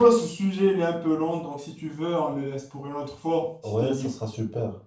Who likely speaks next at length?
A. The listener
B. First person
A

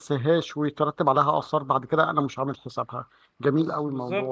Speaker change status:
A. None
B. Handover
B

